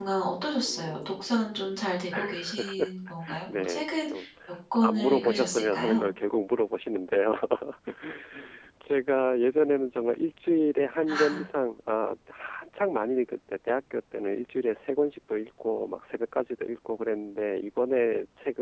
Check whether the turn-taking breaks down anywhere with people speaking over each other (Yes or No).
Yes